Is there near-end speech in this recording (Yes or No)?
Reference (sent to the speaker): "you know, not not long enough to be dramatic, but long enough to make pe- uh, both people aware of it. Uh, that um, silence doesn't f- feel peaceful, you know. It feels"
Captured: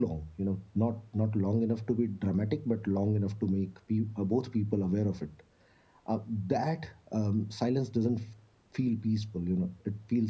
No